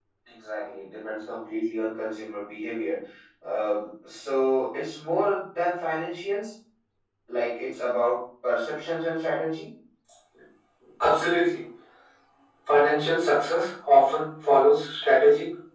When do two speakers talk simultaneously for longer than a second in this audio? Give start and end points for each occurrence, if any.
none

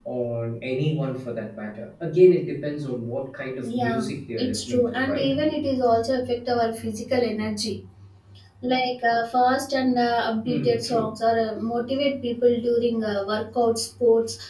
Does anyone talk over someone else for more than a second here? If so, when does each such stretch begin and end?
3.6-5.3

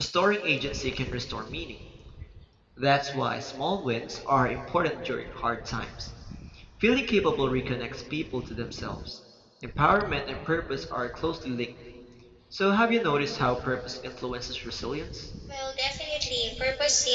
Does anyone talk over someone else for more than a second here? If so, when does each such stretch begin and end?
none

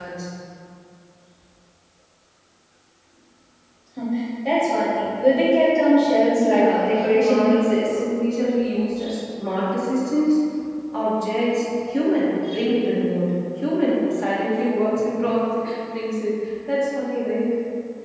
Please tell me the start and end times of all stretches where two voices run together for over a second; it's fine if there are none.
6.4-8.0

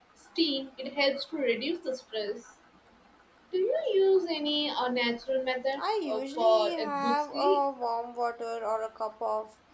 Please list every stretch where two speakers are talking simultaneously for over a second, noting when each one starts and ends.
5.8-7.6

